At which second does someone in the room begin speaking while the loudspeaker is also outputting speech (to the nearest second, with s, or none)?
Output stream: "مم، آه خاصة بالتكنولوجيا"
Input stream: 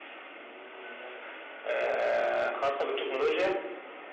none